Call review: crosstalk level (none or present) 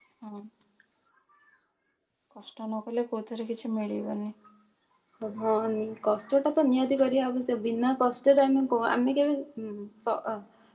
none